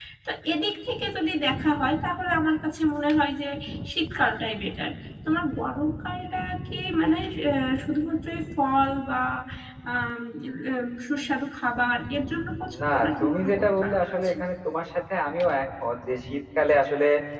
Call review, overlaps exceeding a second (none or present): present